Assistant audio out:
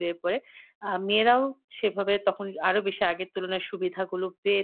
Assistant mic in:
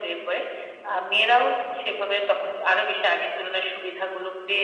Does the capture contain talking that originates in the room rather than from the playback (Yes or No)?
No